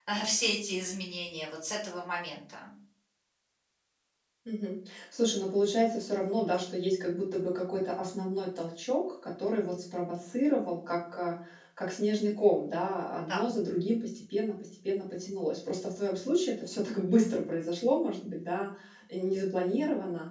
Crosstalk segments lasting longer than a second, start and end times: none

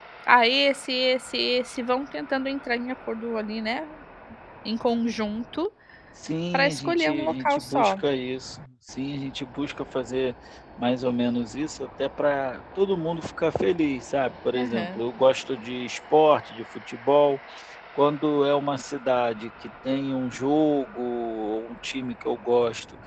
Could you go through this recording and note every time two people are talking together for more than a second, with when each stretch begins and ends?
6.5-8.0

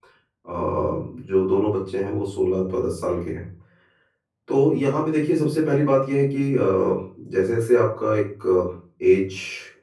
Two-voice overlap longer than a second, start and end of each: none

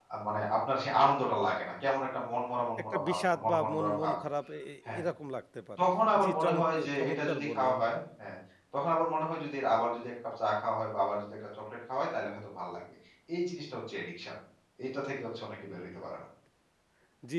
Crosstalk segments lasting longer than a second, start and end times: 2.9-4.1, 6.2-7.8

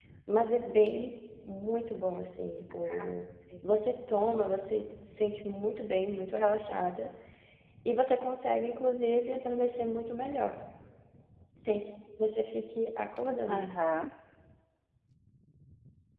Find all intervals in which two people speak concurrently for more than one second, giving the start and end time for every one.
none

